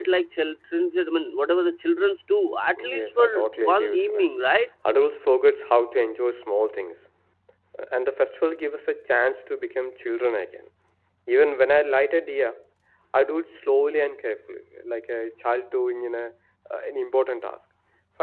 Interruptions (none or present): present